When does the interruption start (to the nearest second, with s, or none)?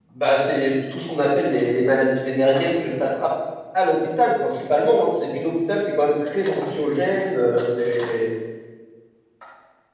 none